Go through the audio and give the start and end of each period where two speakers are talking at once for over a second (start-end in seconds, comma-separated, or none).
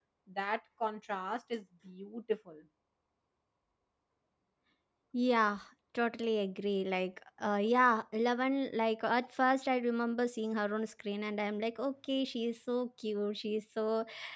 none